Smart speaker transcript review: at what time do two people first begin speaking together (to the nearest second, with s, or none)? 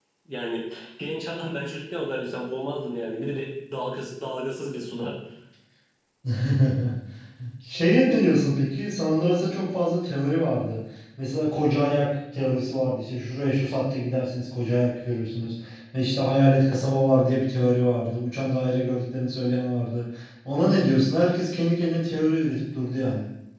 none